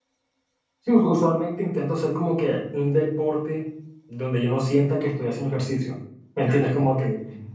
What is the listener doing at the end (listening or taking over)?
listening